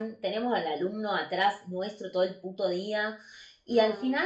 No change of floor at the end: Yes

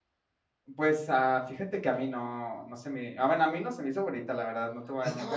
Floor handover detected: Yes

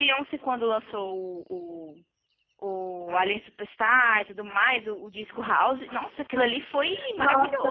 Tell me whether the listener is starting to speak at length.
Yes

